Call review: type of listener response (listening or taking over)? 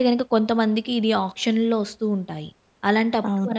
listening